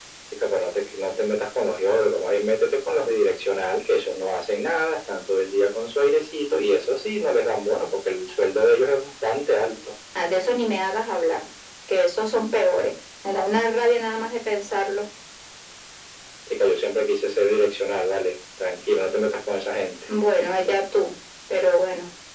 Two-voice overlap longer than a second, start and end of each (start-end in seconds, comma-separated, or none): none